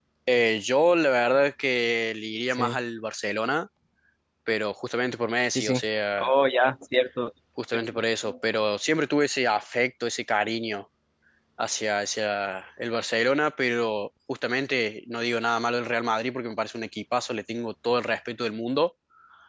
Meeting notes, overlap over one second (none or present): none